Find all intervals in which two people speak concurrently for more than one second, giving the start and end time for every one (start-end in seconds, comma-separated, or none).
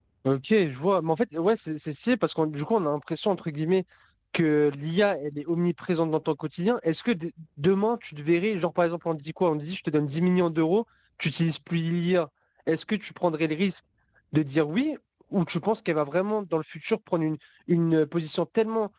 none